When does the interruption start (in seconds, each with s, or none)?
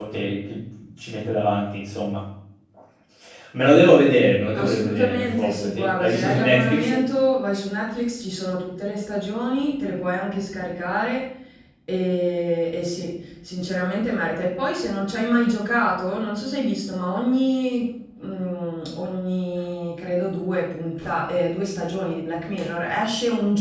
4.5 s